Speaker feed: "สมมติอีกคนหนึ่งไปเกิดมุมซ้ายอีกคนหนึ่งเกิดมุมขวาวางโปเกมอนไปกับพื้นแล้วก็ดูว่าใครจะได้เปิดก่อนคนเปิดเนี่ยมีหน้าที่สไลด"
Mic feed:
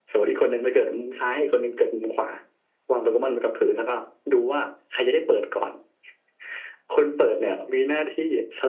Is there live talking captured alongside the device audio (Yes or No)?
No